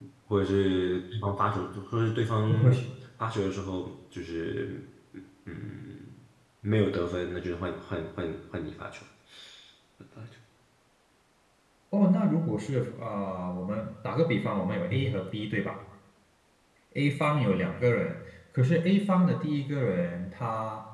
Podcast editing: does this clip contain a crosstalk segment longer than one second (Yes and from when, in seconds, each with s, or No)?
No